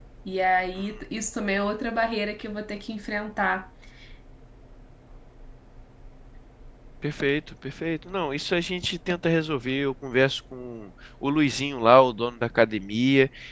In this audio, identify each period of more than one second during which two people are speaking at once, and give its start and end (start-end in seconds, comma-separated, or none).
none